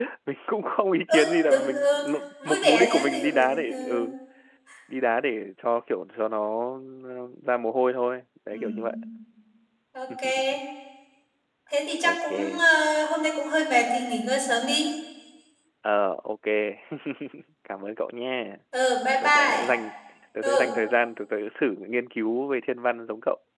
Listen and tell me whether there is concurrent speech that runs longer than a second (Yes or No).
Yes